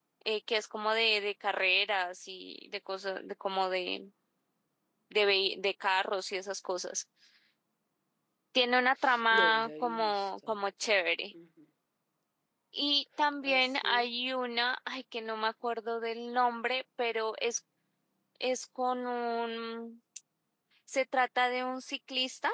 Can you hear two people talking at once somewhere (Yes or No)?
Yes